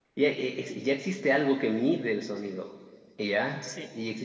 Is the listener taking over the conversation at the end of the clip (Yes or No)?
No